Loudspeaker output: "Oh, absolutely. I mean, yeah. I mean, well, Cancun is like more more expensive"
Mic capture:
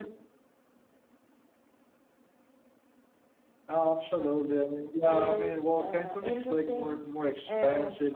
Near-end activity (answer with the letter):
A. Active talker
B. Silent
A